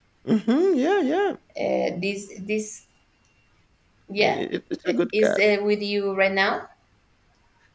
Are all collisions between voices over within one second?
Yes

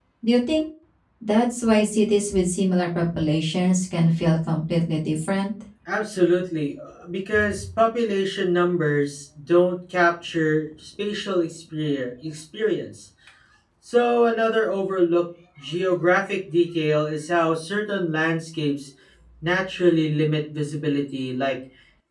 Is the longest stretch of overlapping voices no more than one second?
Yes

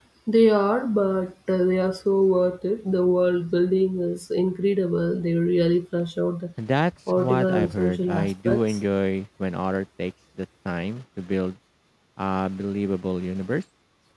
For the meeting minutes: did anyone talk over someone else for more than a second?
Yes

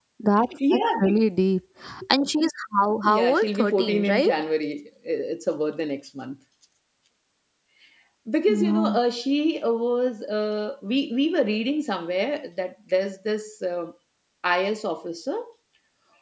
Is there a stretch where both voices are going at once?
Yes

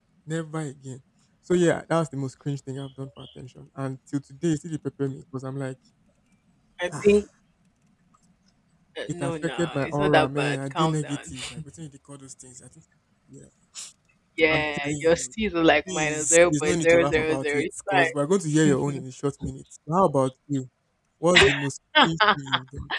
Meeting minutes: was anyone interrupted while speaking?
Yes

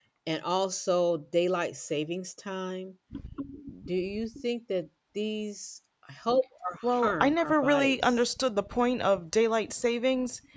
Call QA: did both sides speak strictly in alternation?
No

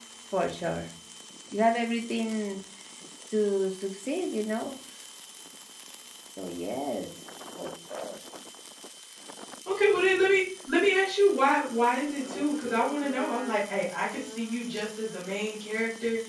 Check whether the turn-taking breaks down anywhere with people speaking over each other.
No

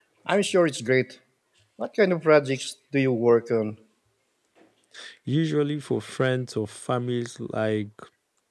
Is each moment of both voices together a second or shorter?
Yes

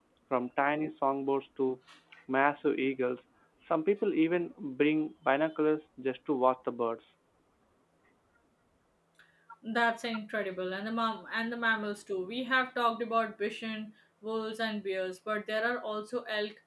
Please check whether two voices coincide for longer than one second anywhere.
No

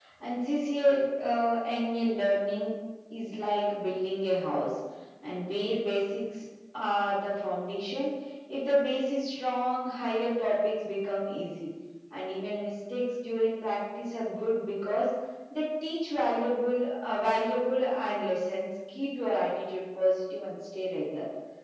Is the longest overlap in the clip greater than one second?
No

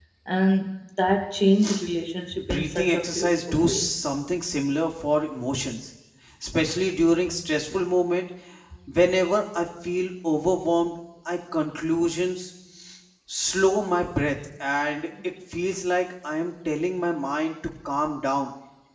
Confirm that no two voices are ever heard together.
No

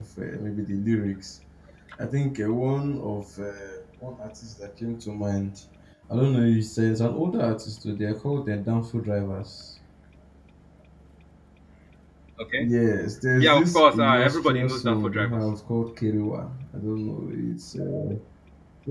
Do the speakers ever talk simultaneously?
Yes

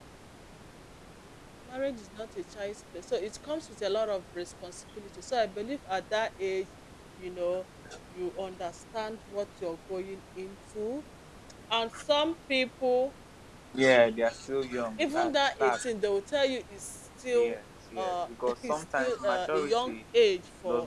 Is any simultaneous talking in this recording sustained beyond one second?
Yes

